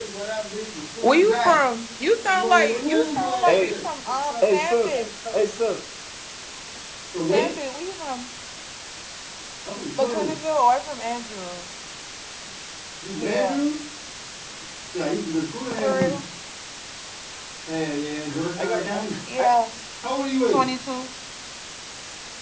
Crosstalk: present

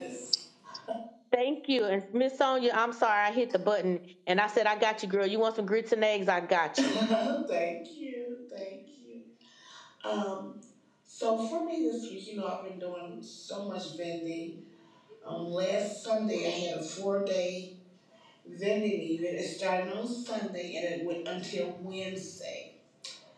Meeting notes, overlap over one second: none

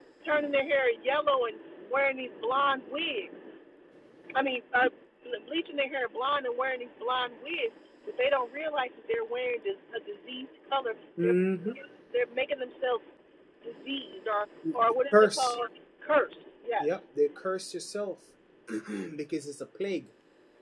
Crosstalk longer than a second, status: none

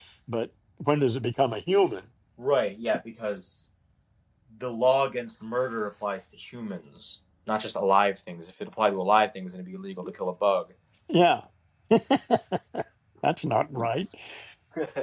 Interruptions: none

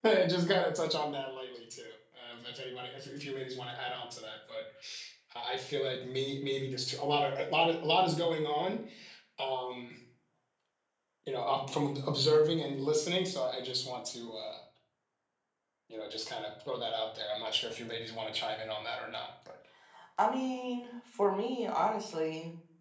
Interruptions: none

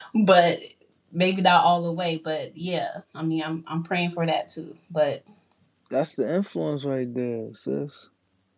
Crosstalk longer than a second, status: none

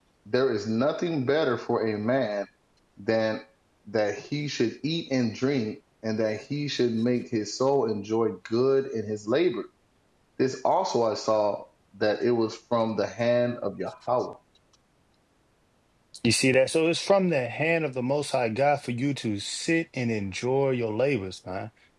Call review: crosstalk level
none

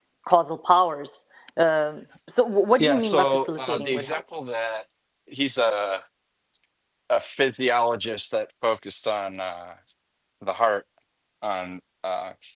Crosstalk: present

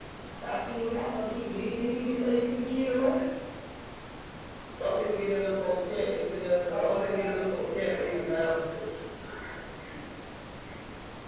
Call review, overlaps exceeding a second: present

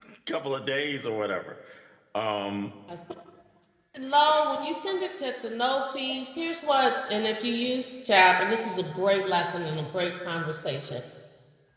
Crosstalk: none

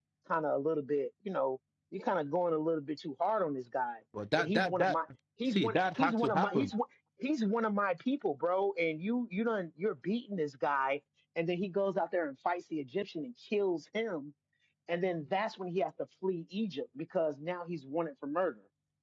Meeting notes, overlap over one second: present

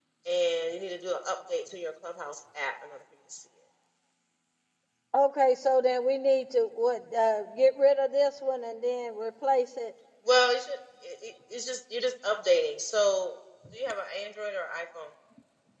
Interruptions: none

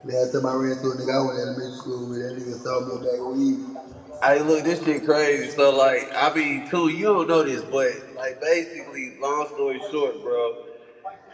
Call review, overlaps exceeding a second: none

